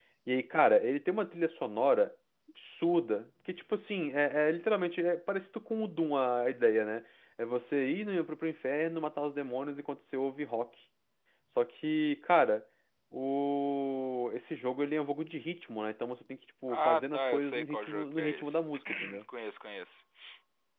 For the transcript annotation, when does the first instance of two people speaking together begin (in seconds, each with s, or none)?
16.7 s